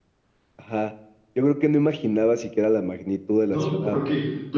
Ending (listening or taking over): taking over